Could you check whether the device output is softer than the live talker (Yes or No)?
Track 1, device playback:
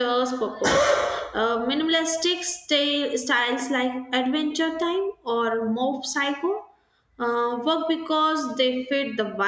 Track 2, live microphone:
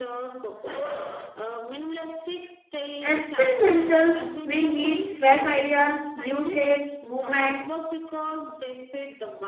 Yes